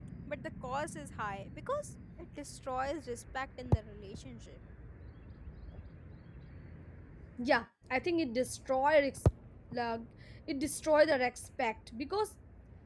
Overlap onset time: none

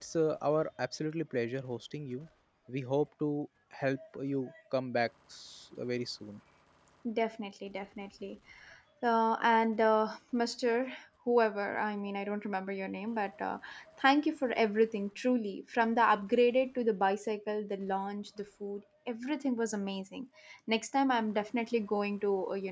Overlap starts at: none

